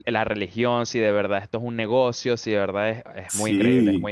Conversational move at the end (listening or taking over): taking over